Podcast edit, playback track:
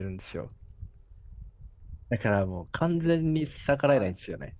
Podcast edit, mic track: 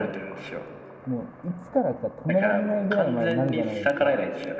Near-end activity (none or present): present